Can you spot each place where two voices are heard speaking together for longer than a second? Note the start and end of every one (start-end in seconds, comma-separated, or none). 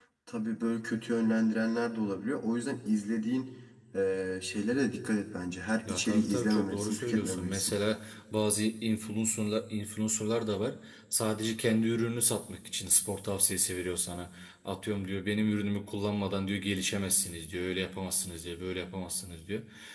5.9-7.7